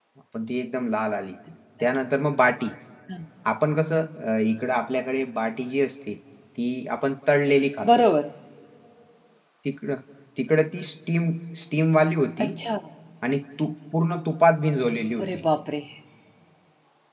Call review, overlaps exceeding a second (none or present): none